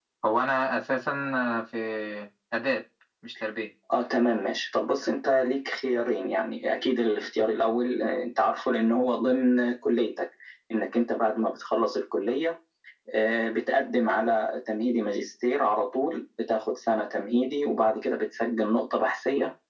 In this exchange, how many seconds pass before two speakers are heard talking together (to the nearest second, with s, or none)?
none